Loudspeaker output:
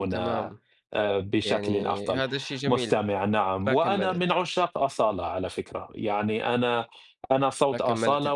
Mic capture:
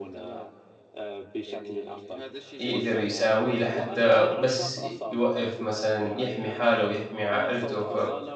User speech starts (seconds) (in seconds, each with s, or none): 2.6 s